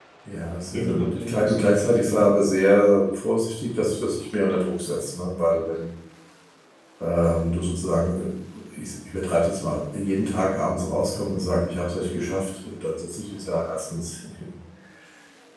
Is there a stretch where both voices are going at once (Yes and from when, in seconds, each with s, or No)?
Yes, from 0.7 s